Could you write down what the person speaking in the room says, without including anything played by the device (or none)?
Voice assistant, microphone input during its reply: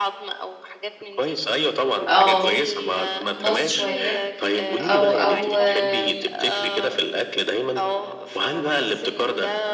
آه، باظ شوية أو أو آمم،